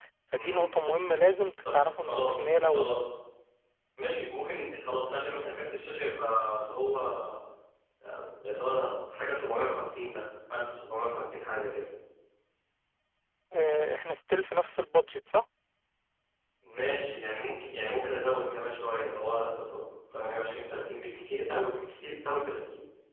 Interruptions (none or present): present